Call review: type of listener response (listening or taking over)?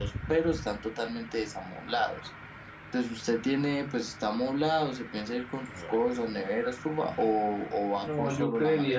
taking over